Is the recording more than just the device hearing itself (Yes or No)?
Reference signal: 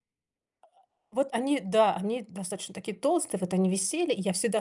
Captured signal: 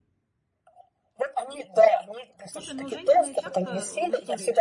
Yes